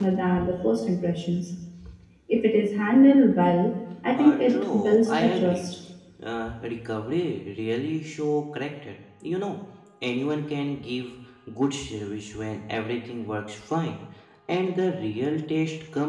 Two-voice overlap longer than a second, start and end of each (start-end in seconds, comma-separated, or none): 4.2-5.6